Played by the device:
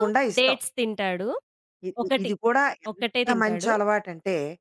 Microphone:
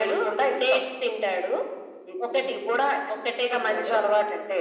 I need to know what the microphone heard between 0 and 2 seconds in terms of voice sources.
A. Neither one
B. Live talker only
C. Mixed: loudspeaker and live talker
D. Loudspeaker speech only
D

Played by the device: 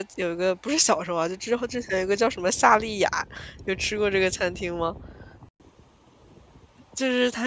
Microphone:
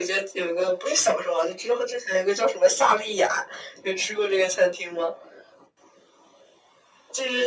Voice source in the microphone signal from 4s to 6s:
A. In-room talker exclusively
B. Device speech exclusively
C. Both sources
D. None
B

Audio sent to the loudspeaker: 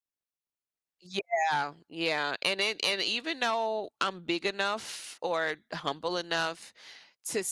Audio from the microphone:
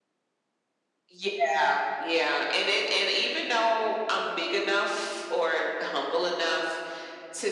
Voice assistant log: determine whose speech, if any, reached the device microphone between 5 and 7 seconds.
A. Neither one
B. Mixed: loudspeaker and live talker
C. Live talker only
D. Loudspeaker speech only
D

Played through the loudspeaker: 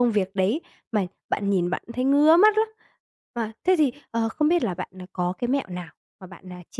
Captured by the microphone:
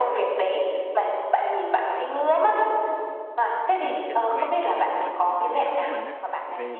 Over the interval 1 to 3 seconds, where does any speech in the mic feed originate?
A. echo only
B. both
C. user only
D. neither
A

